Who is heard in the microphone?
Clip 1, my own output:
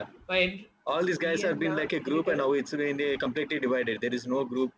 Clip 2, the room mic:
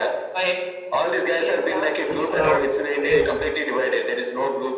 both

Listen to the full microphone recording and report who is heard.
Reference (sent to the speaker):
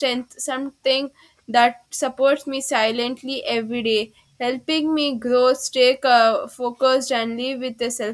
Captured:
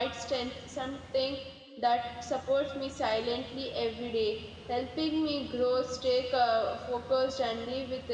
echo only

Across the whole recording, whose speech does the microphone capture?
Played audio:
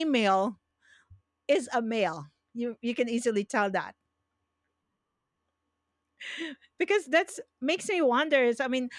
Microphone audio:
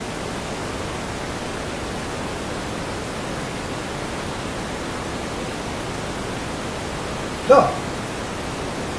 user only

